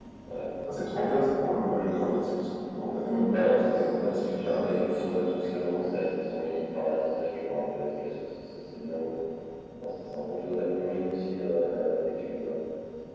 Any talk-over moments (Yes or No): Yes